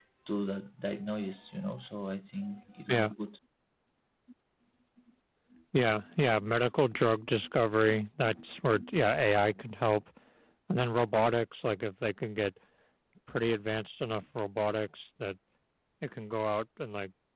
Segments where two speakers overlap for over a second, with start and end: none

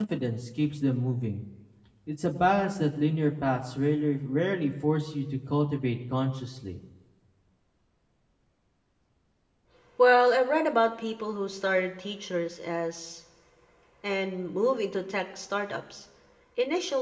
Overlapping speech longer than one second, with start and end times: none

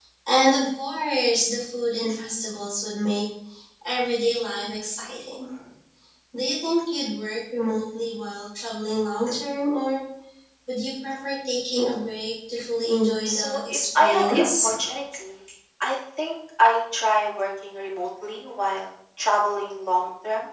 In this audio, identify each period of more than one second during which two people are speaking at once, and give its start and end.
13.3-14.7

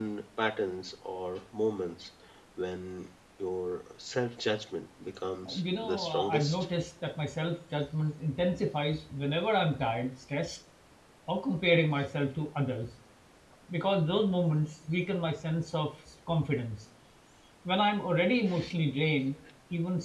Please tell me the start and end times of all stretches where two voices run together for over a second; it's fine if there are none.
5.5-6.7

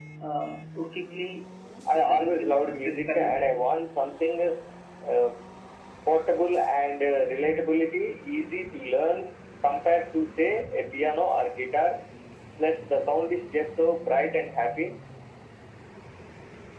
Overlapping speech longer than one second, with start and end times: 1.9-3.4

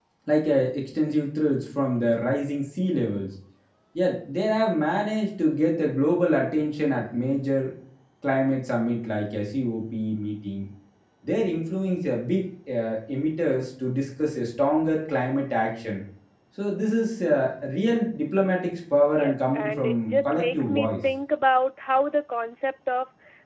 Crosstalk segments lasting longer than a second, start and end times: 19.1-20.9

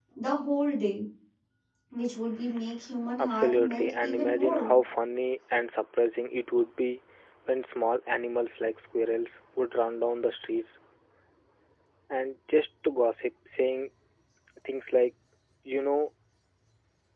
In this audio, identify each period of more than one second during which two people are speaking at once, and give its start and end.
3.2-4.7

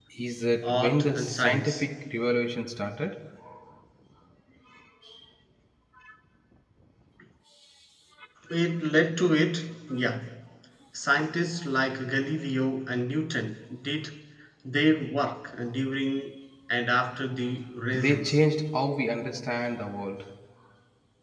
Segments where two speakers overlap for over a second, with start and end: 0.6-1.8

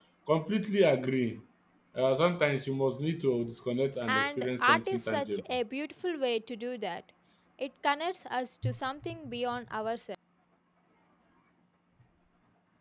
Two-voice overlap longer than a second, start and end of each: 4.1-5.4

